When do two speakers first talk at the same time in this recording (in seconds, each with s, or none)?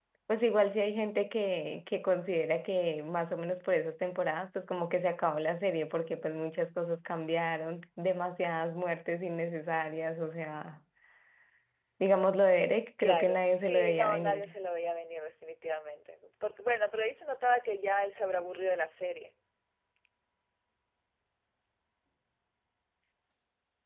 13.0 s